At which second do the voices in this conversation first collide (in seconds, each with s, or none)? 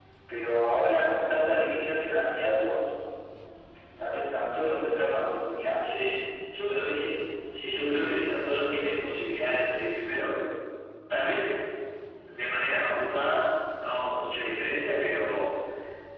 none